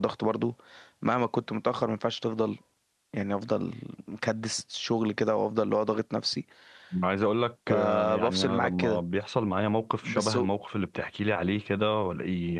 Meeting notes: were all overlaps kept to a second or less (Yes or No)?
No